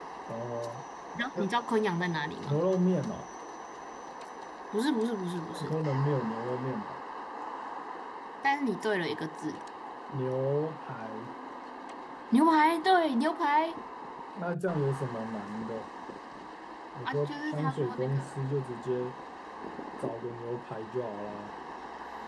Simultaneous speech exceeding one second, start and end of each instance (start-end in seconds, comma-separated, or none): 17.0-18.4